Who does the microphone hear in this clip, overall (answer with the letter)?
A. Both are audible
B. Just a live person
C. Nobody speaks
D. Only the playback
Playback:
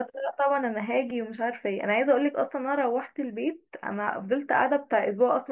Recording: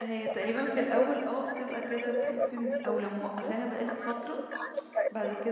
A